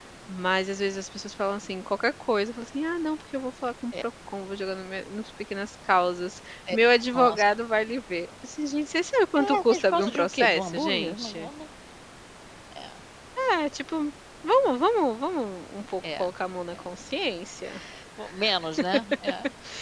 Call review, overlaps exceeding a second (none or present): present